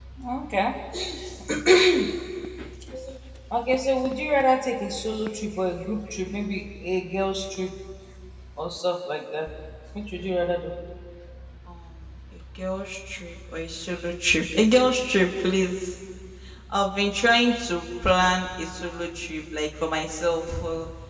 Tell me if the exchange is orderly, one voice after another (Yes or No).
Yes